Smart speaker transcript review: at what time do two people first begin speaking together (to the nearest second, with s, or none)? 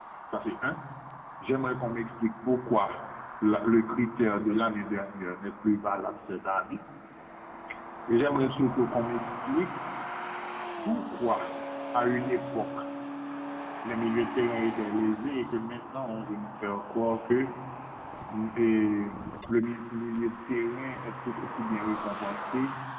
none